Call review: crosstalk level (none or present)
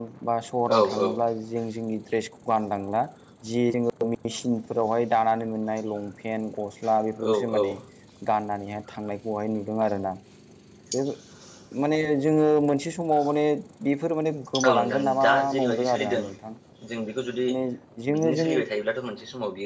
present